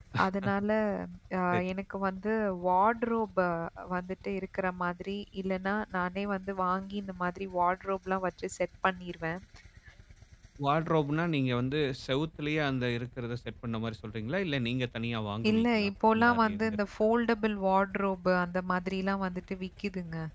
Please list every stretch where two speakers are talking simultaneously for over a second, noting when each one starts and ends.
15.5-16.8

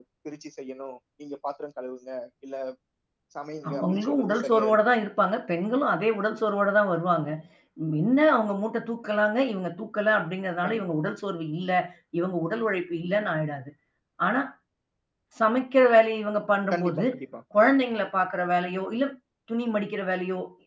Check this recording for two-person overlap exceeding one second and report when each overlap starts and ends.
3.7-5.0

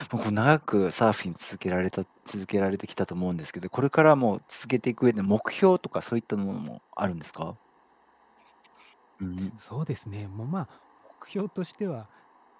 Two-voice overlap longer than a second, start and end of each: none

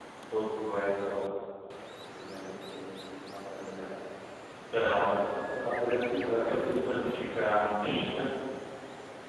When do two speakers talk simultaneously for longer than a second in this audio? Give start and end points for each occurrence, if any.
6.2-7.5

